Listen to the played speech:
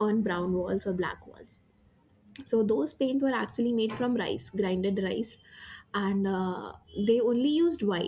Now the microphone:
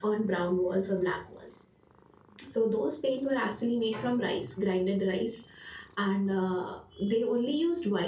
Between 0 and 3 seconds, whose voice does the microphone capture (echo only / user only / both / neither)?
echo only